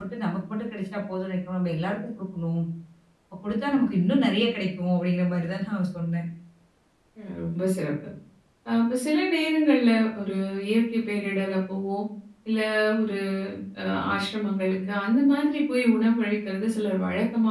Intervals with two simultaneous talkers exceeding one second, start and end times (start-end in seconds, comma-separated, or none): none